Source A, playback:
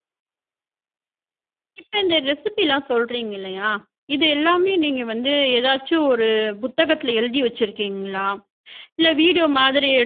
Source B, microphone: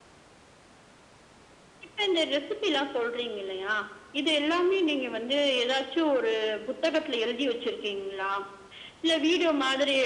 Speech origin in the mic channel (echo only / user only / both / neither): echo only